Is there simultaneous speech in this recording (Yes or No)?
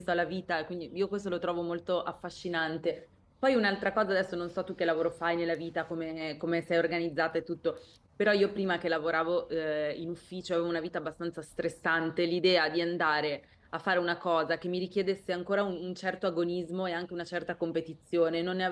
No